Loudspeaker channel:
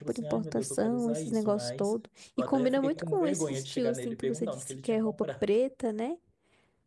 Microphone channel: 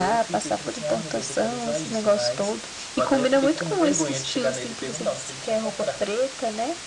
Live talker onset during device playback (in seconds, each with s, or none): none